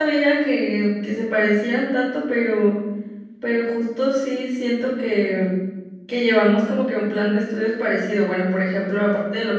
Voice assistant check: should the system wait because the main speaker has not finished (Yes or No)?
Yes